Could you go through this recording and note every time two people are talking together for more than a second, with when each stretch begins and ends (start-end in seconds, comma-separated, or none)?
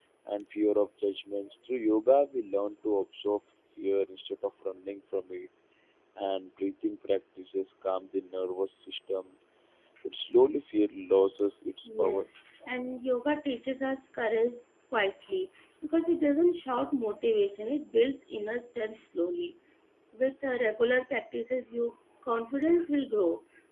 none